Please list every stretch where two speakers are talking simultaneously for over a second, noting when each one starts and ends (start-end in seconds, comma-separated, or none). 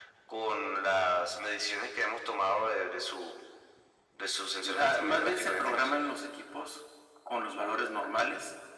4.6-5.9